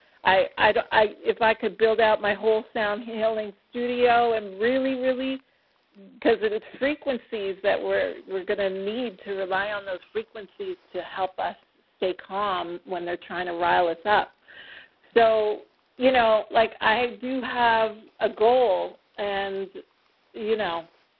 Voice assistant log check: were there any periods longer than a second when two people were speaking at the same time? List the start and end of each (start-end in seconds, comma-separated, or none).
none